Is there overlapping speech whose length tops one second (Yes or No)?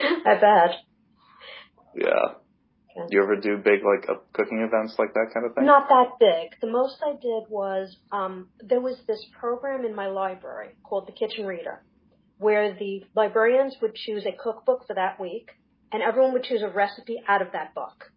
No